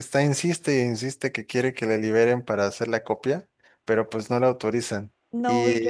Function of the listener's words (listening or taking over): taking over